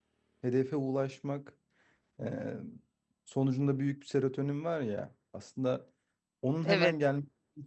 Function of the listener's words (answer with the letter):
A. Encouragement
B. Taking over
A